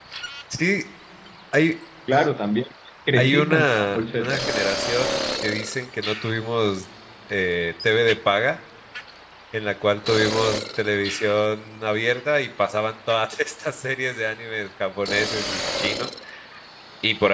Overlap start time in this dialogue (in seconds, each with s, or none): 3.1 s